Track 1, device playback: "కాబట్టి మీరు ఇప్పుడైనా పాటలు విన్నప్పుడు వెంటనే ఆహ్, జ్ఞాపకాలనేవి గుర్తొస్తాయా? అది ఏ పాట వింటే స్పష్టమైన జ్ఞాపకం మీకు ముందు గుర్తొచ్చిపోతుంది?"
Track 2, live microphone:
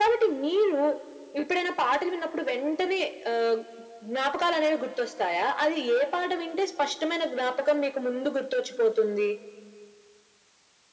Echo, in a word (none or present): present